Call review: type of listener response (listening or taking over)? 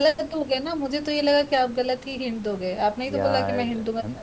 taking over